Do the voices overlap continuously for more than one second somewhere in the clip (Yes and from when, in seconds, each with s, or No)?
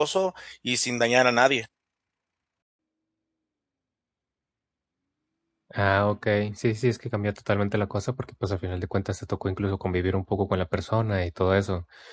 No